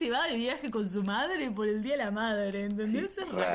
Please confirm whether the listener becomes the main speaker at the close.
Yes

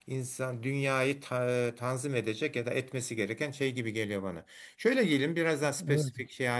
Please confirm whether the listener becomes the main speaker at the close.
No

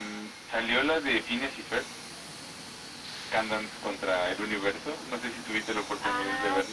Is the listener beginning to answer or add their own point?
Yes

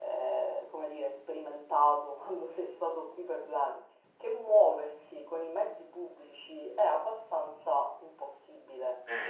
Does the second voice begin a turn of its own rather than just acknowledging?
No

